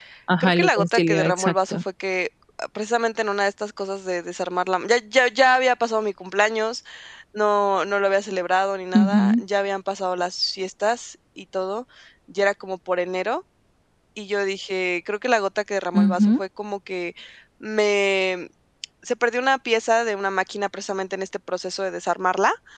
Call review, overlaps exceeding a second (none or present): present